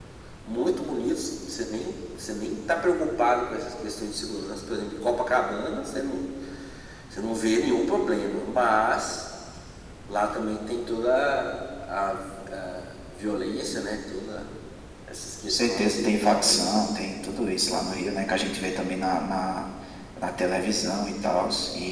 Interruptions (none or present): present